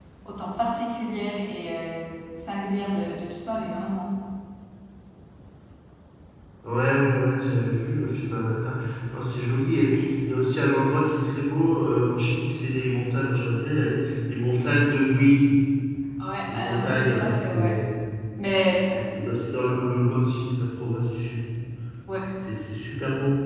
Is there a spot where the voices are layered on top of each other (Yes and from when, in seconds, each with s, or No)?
Yes, from 16.5 s